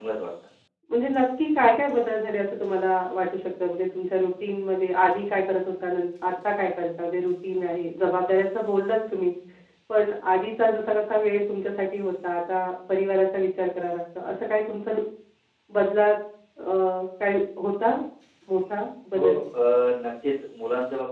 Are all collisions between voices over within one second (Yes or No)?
Yes